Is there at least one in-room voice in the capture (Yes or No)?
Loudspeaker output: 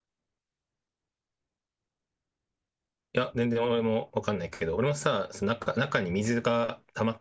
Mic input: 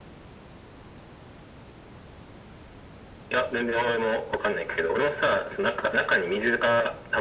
No